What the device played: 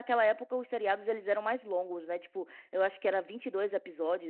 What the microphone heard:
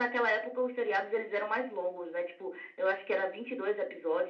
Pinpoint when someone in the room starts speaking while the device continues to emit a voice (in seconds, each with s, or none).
none